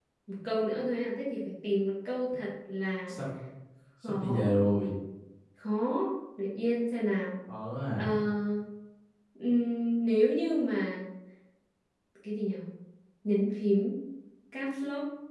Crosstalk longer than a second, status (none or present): none